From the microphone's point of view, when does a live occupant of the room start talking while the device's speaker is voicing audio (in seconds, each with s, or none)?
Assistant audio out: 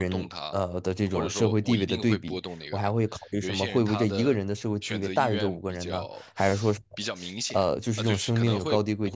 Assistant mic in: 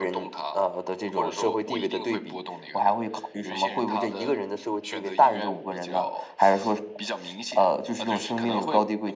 none